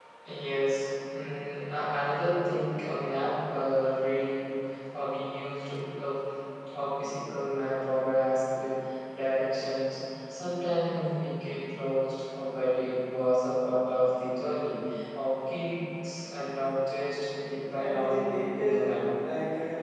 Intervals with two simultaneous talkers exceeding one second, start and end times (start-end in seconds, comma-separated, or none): 17.8-19.0